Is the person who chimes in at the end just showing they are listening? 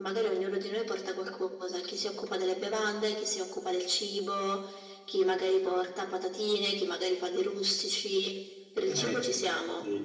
No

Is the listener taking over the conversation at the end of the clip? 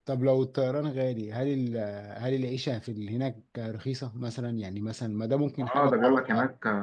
Yes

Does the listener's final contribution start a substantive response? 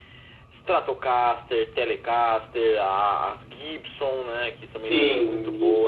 Yes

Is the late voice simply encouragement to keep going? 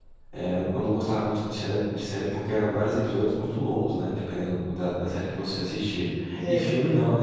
Yes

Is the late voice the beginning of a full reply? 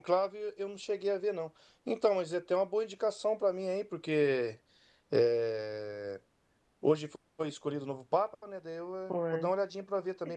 No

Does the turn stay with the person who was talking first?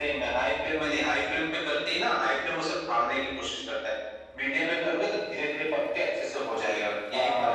No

